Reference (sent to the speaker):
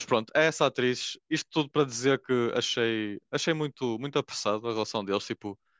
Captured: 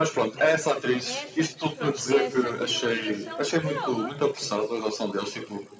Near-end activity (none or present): present